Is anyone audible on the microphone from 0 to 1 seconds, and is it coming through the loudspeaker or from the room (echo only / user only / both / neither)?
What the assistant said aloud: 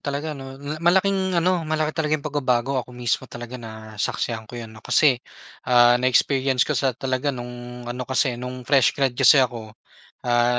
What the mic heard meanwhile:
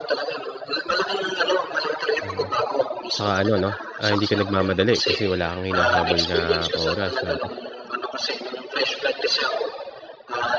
echo only